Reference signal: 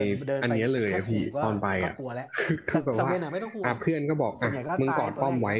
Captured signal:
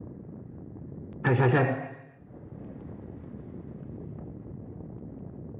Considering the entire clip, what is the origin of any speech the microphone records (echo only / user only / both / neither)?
user only